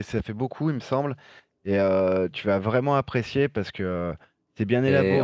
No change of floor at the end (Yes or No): No